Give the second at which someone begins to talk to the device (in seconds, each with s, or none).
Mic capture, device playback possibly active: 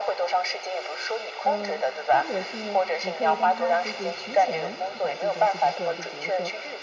1.4 s